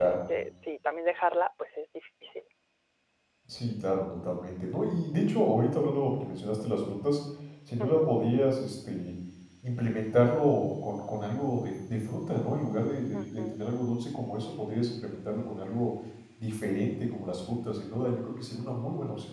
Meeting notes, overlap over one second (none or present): none